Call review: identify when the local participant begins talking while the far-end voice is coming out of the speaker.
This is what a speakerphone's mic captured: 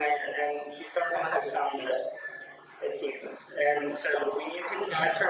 none

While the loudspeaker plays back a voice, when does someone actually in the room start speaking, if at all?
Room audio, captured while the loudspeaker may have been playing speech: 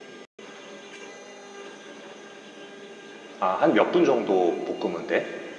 3.4 s

